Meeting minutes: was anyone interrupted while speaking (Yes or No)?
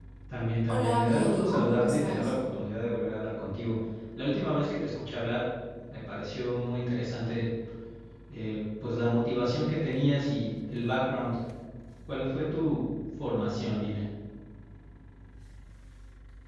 Yes